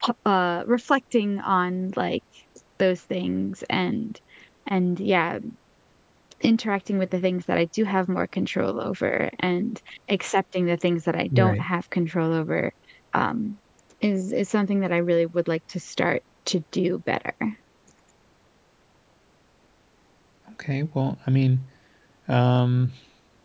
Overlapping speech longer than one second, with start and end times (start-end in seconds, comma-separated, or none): none